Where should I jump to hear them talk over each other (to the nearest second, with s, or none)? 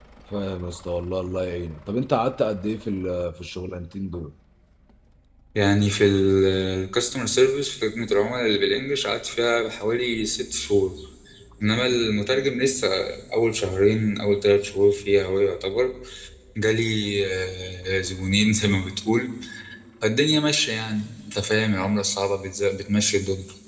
none